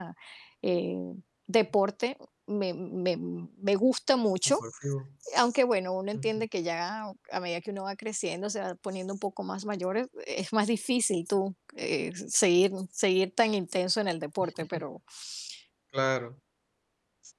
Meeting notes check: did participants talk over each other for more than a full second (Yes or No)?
No